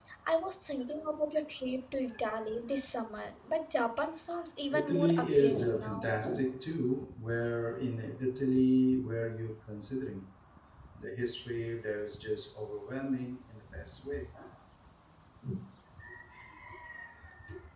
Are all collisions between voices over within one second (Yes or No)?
No